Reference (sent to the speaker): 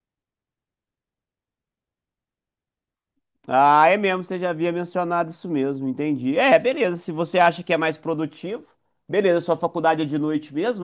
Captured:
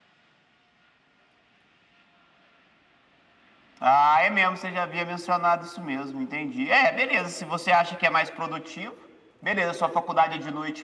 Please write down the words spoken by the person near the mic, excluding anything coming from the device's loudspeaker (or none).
none